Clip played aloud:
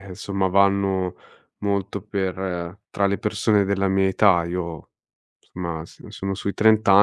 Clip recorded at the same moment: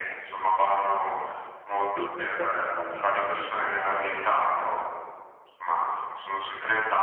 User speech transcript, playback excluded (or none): ehm, dirmi quali sono i temi che